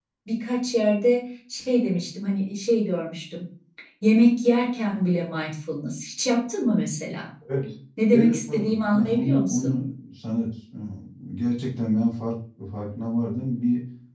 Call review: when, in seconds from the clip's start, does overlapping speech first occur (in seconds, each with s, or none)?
8.1 s